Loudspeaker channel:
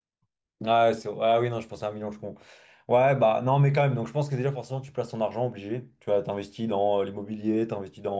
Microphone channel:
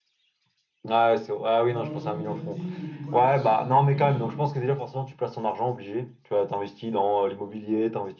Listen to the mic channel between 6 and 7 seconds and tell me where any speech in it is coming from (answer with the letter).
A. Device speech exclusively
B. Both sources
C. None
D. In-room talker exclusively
A